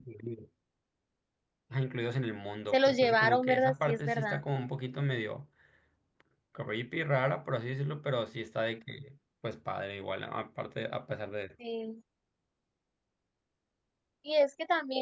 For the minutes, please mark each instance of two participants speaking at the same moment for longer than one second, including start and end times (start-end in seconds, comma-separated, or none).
2.7-4.4